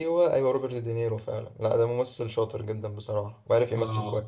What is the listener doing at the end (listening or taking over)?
taking over